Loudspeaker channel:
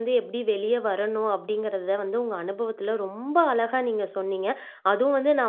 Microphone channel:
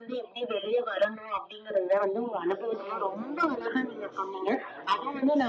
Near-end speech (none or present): present